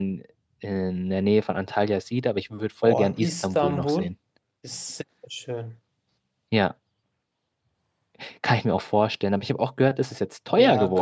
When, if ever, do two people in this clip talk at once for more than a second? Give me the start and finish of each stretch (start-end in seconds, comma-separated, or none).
2.8-4.1